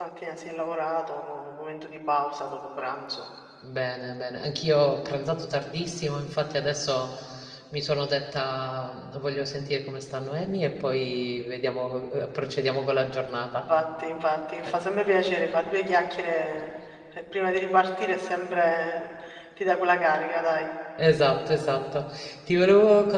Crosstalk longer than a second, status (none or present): none